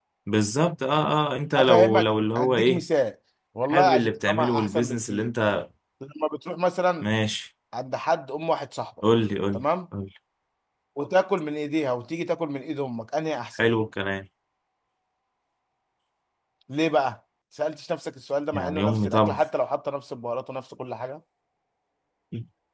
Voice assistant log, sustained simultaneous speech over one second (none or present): present